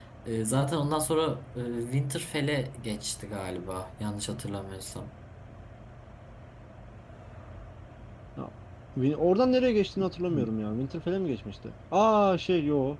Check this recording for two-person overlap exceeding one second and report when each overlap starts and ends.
none

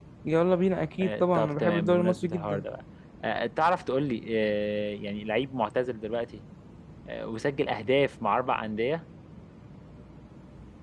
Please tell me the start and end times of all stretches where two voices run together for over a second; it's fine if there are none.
1.0-2.6

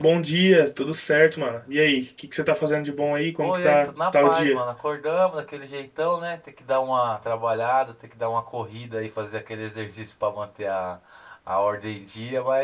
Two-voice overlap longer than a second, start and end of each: 3.4-4.6

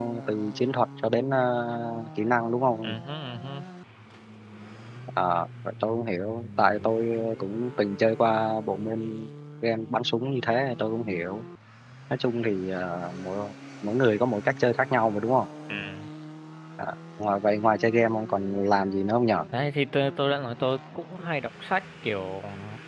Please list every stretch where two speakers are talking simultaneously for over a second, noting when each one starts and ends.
none

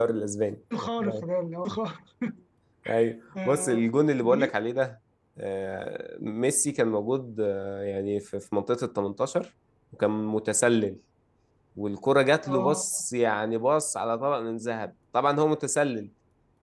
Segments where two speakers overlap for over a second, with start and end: none

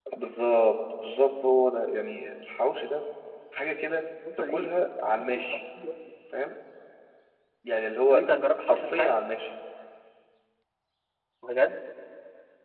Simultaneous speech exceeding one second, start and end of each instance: 4.4-5.6

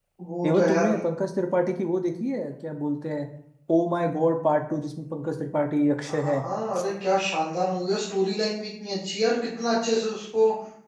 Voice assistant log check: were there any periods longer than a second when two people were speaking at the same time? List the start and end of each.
none

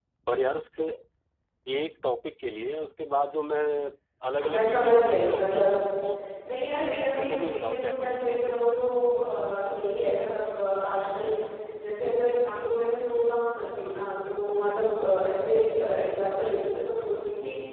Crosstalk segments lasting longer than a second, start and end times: 4.4-5.8, 7.2-8.5

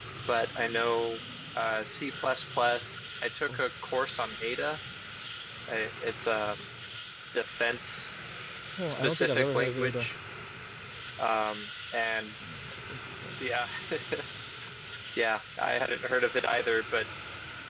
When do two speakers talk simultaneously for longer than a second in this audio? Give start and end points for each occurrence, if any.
8.9-10.1

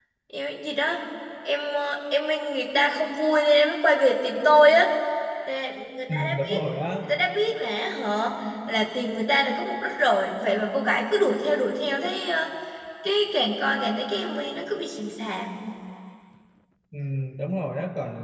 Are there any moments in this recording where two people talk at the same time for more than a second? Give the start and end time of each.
none

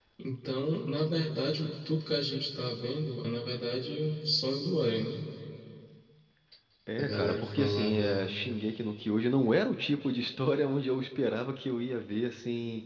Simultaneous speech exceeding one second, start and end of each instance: 7.0-8.3

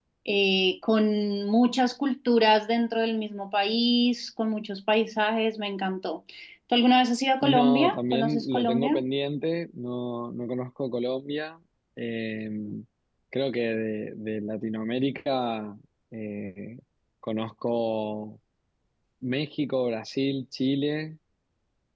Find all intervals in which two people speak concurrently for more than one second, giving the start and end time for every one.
7.4-9.0

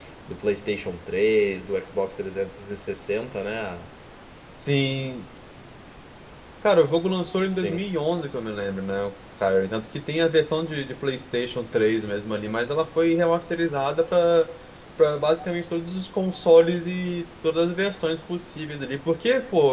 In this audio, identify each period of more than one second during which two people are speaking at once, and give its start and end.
none

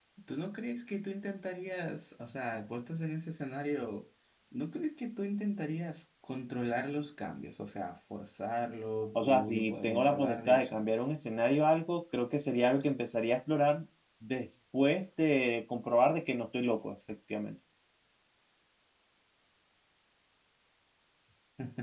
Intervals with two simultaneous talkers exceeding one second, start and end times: 9.2-10.8

